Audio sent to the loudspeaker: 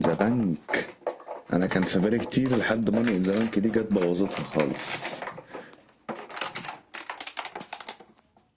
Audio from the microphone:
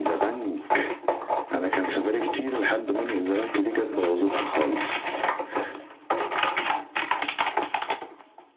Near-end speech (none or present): none